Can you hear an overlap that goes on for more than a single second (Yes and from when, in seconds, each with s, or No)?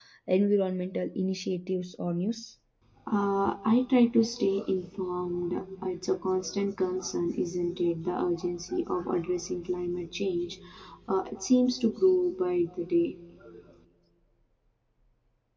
No